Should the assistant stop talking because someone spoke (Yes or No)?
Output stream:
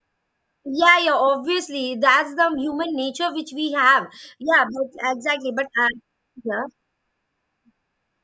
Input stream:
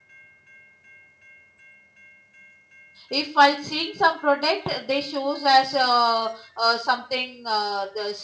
Yes